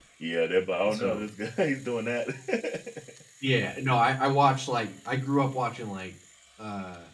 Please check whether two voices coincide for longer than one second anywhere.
No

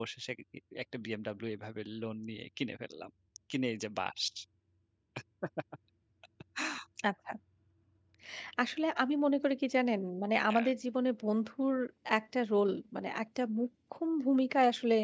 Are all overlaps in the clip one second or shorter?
Yes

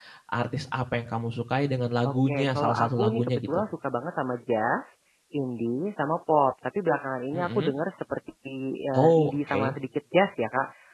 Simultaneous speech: Yes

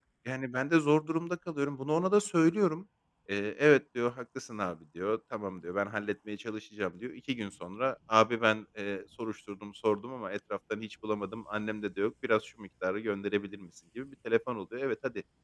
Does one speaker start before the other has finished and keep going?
No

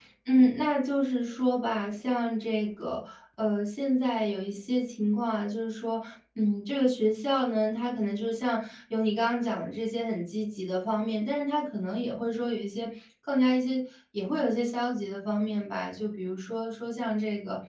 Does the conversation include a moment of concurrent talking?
No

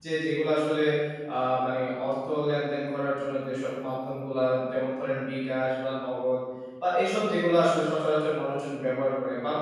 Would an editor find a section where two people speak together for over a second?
No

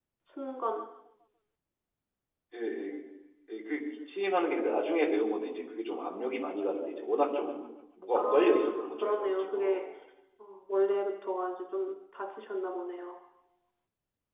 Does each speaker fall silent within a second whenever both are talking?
No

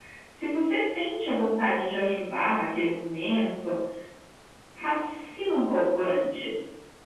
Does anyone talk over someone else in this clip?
No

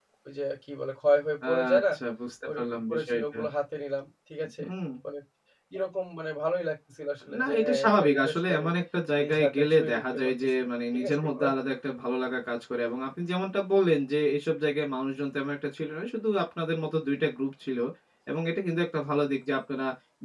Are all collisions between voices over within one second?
No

